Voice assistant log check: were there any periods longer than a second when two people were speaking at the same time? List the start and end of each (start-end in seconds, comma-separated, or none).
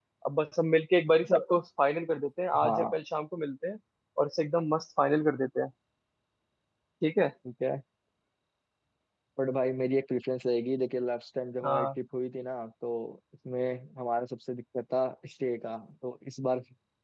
none